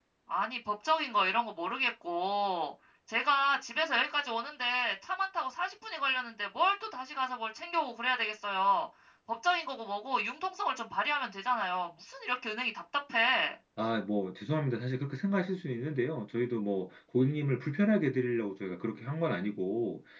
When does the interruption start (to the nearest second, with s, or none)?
none